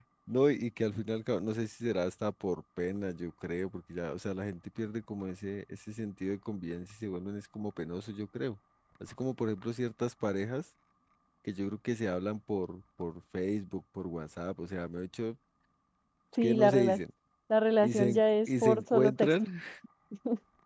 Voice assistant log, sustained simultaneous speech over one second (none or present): present